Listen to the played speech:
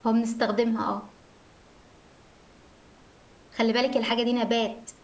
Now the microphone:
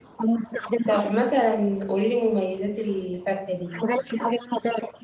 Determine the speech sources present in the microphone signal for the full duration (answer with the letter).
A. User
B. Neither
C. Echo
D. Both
D